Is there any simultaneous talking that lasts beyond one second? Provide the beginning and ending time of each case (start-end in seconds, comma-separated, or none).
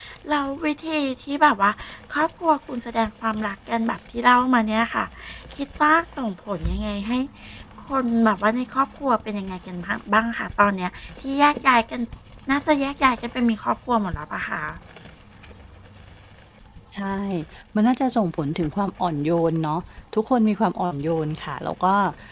none